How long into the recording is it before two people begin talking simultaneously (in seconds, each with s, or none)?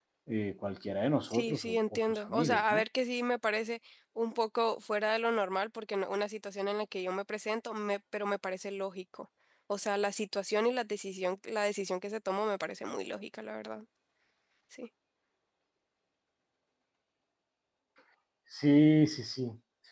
1.3 s